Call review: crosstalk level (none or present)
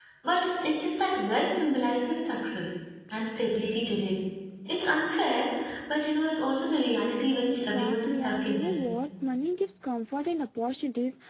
present